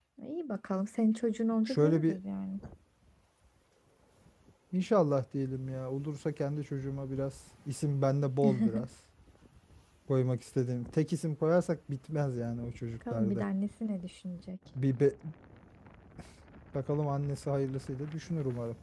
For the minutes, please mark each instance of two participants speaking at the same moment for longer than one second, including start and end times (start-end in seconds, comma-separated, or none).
none